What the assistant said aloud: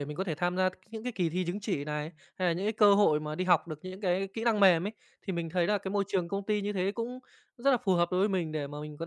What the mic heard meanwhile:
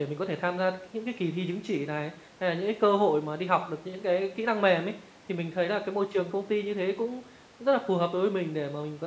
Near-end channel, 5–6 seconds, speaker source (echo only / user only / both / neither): echo only